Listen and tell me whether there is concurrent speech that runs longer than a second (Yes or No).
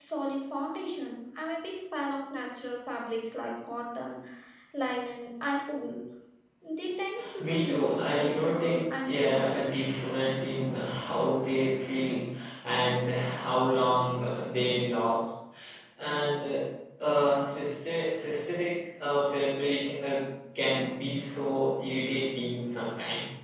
Yes